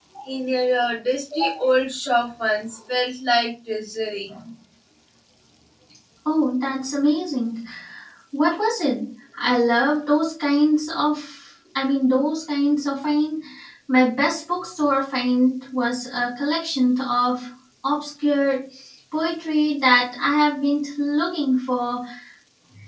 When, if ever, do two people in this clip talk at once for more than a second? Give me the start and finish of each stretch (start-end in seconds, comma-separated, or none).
none